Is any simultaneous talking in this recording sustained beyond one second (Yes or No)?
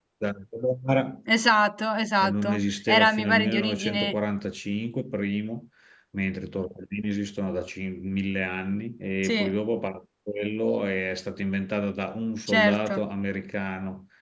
Yes